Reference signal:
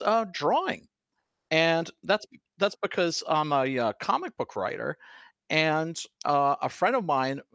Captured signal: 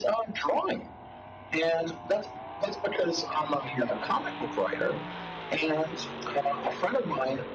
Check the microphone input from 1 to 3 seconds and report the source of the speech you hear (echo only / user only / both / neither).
echo only